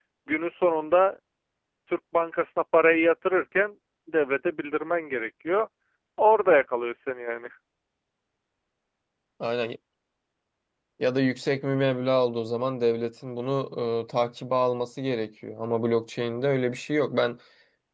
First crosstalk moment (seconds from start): none

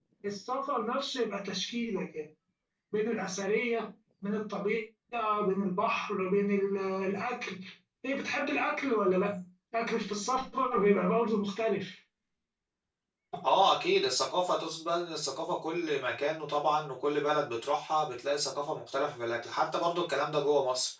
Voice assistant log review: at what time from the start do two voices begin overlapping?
none

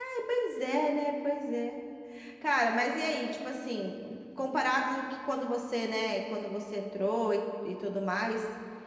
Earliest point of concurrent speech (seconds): none

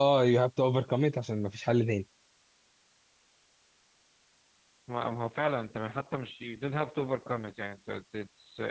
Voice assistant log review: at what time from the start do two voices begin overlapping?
none

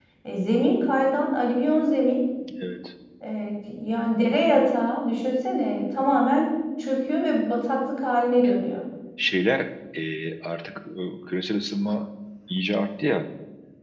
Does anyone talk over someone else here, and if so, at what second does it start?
none

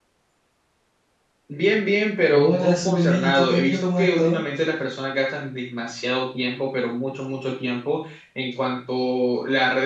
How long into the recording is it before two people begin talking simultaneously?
2 s

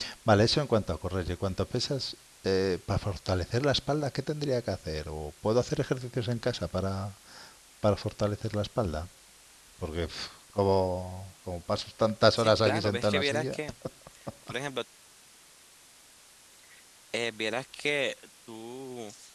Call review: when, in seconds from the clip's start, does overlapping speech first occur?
12 s

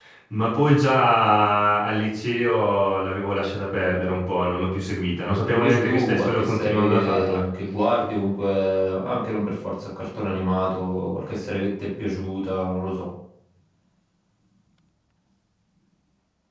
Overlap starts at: 5 s

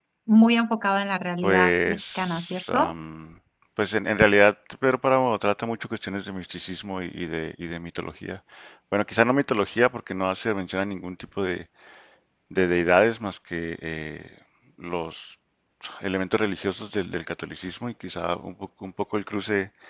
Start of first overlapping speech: 1 s

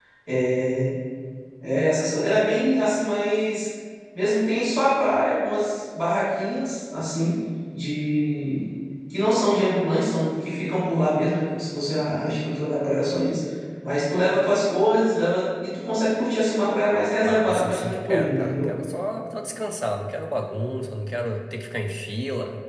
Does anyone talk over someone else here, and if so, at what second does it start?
17 s

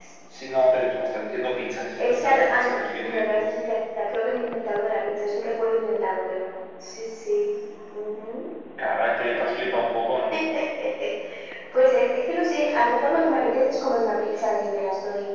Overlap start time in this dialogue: 2 s

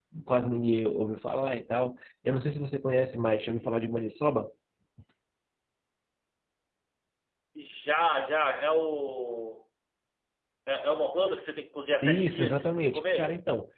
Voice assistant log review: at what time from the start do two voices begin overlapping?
12 s

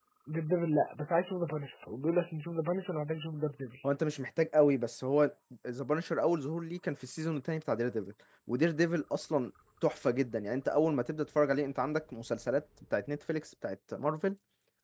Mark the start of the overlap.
none

